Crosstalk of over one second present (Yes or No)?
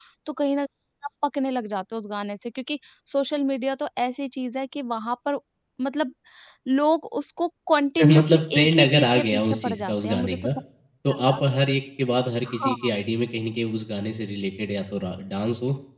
Yes